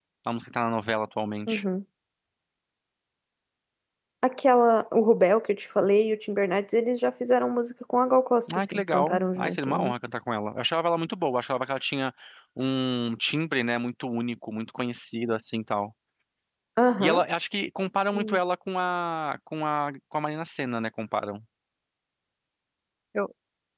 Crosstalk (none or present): present